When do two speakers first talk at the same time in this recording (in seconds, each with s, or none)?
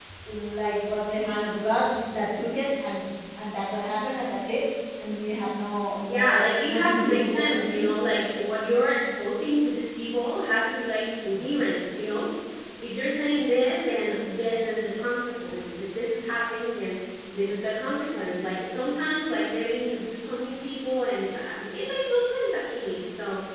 6.0 s